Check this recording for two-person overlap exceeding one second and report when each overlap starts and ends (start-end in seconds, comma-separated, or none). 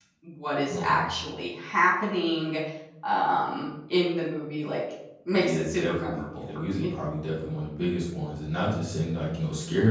5.3-6.9